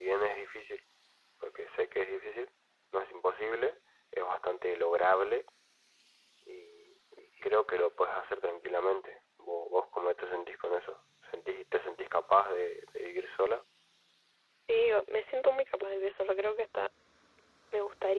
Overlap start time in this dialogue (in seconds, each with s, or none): none